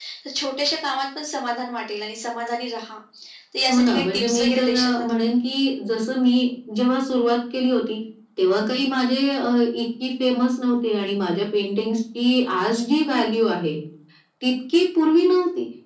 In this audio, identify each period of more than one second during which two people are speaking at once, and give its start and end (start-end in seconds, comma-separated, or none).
3.7-5.3